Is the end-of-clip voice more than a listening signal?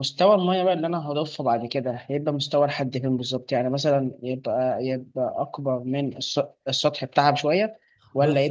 No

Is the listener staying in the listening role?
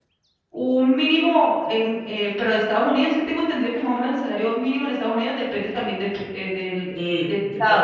No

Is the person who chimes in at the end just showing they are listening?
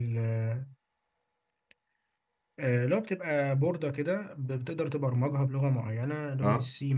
Yes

